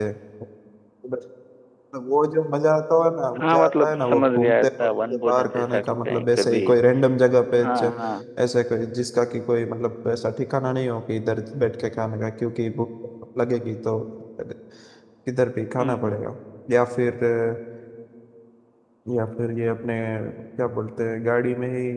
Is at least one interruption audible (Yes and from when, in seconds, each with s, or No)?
Yes, from 3.4 s